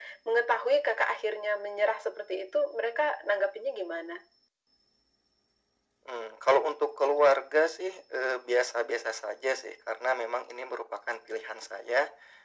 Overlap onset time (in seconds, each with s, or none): none